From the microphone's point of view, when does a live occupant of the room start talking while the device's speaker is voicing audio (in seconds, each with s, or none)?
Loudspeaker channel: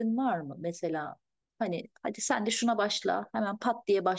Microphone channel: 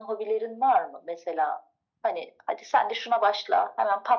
none